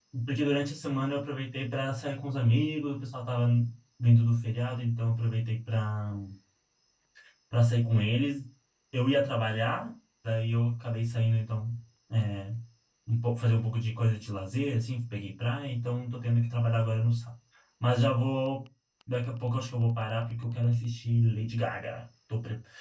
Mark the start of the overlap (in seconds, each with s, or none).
none